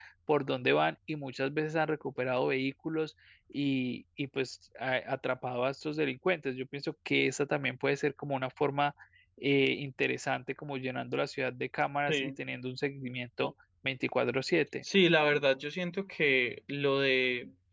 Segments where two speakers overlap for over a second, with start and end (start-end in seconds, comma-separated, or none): none